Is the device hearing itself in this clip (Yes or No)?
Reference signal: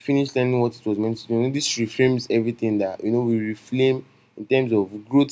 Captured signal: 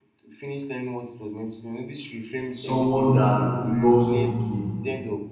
Yes